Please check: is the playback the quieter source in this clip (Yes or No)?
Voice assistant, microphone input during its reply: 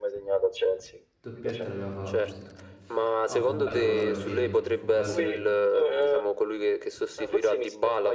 No